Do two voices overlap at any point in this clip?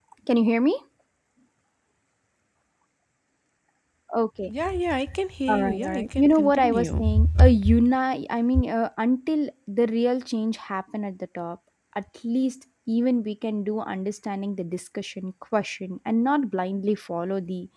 Yes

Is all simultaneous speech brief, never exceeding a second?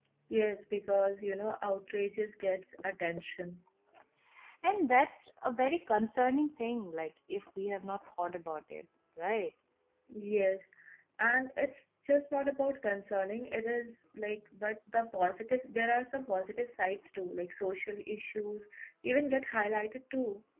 Yes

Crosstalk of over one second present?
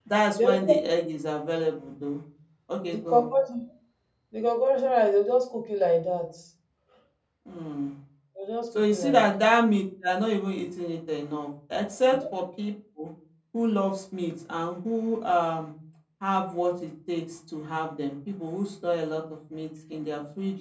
No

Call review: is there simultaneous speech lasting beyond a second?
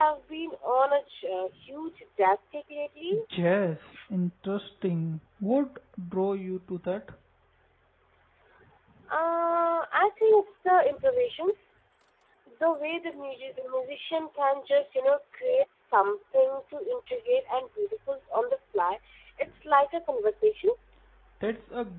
No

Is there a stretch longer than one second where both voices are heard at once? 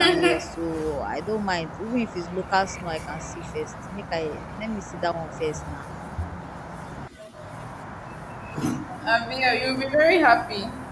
No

